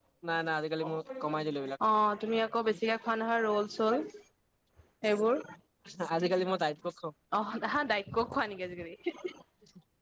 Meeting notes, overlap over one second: none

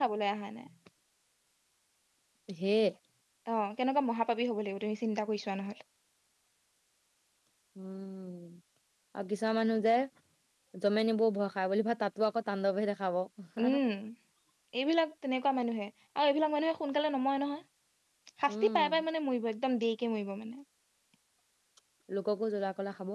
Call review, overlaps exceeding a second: none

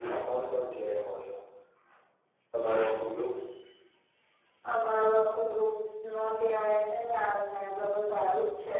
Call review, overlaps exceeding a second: none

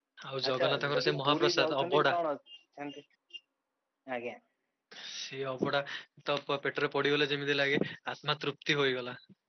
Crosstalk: present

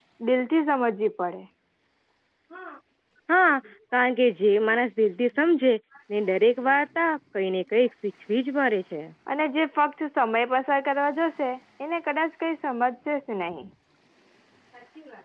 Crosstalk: none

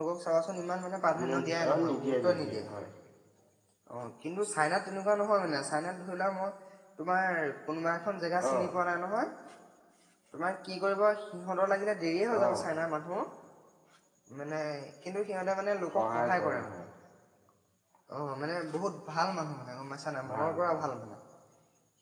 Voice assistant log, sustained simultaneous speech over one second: present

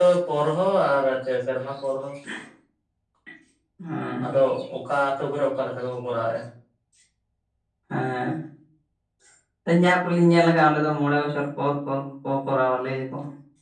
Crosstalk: none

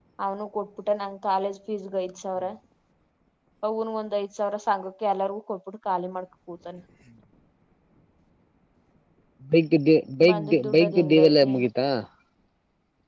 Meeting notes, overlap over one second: present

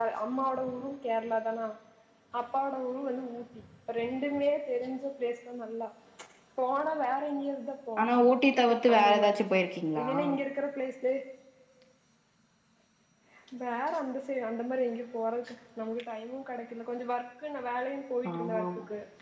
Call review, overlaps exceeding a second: none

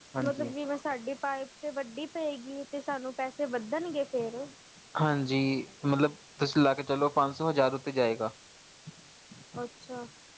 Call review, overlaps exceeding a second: none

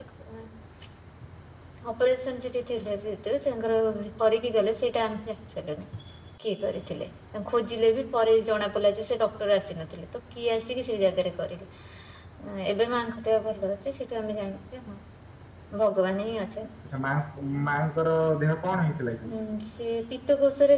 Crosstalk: none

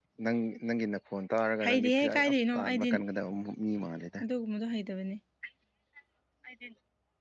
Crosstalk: present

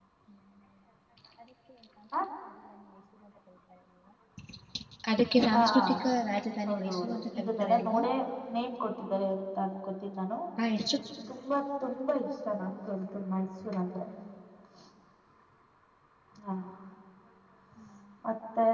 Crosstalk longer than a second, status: present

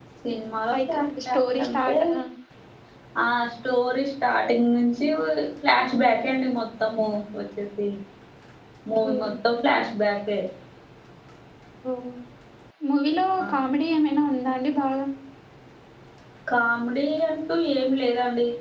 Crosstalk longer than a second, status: present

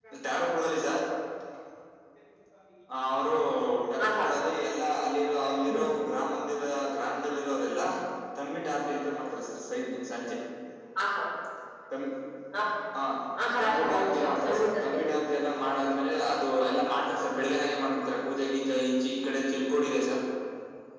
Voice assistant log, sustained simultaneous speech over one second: present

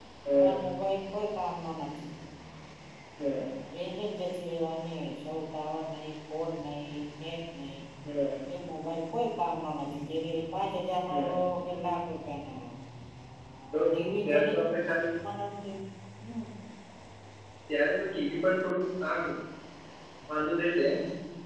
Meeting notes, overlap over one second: none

